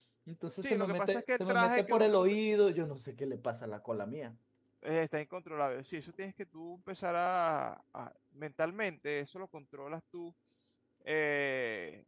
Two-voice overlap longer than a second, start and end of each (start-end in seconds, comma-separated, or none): 0.6-2.2